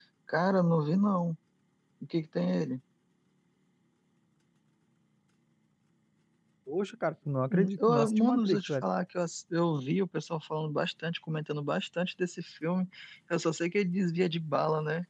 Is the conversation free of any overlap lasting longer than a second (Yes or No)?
No